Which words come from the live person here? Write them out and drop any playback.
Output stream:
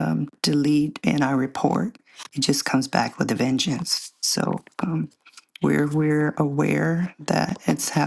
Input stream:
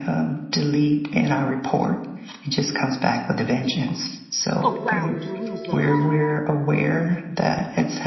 around Jerusalem.

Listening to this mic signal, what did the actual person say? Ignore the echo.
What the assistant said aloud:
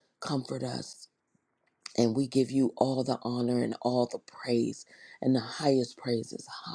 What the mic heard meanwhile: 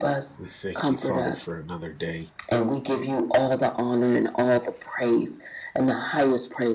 We thank you, Father, for another day.

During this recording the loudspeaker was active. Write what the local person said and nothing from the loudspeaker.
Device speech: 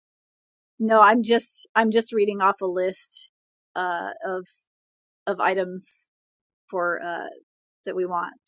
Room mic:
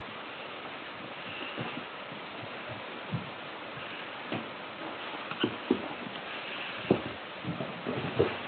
none

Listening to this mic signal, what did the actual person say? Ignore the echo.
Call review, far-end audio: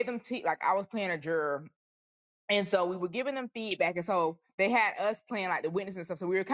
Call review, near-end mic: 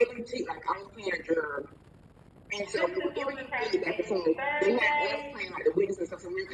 tips and tools for transformational Thursday.

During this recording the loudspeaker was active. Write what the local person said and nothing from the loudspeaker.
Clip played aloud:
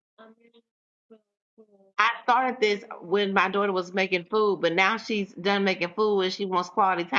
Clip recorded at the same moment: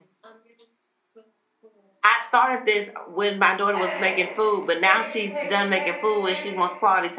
Hey, hey, hey, hey, hey,

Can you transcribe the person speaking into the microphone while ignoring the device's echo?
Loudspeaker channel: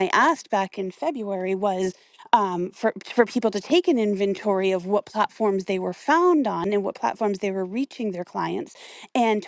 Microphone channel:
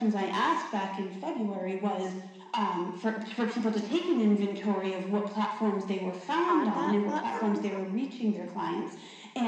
on that platform

